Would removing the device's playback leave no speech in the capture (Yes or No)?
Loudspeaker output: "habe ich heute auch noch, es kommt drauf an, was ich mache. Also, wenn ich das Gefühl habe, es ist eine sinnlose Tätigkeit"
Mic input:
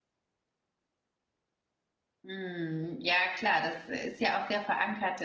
No